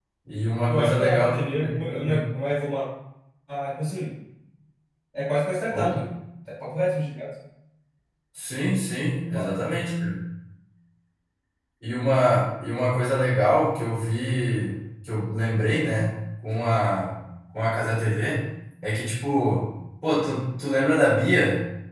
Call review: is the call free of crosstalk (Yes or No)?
No